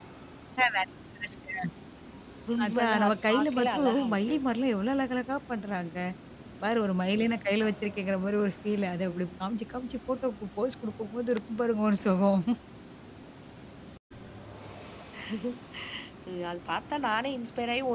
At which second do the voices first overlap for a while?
2.6 s

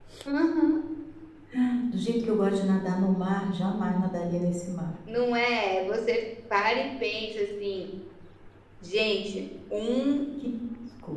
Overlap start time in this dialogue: none

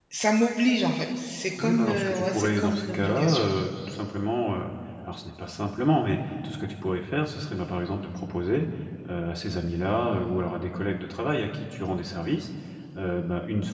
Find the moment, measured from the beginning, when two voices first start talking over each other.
1.6 s

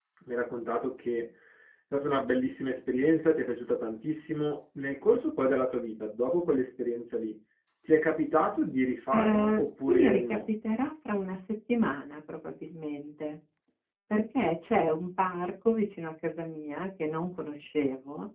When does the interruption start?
9.1 s

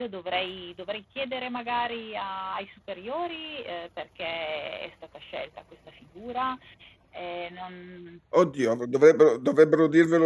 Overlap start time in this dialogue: none

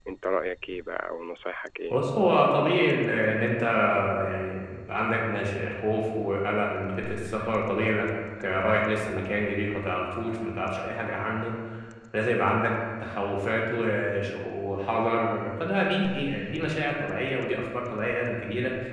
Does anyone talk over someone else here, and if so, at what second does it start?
none

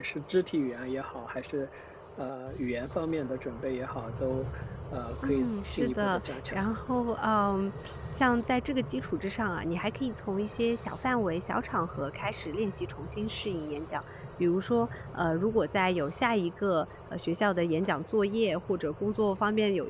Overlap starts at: 5.2 s

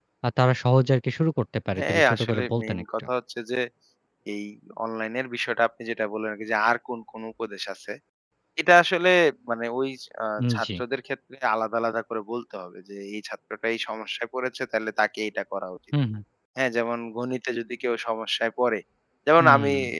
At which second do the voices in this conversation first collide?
1.8 s

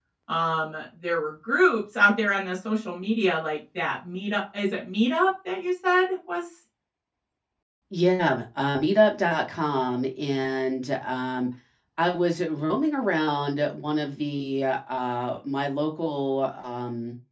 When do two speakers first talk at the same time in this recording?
none

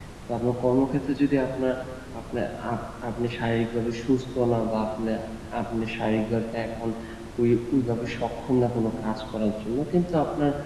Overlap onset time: none

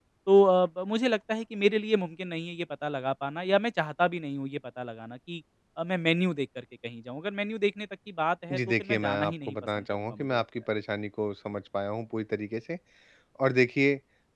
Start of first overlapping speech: 8.5 s

